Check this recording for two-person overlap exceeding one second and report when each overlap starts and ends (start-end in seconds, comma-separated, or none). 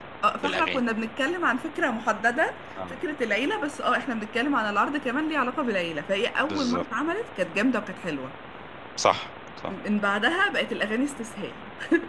none